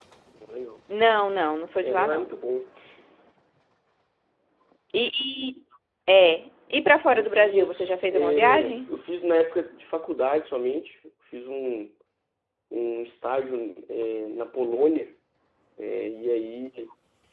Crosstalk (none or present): present